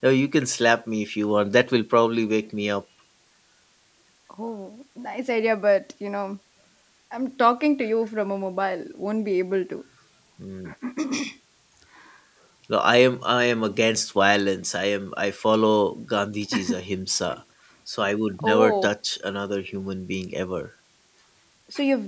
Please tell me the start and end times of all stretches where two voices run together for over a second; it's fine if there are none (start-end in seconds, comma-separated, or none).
none